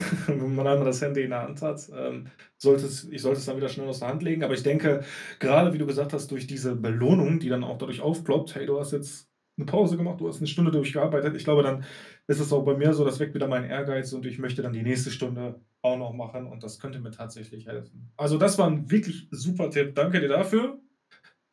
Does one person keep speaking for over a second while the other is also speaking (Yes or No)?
No